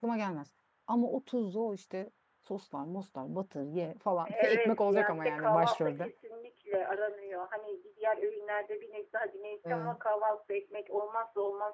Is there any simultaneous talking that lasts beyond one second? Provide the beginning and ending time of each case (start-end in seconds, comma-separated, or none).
4.2-6.1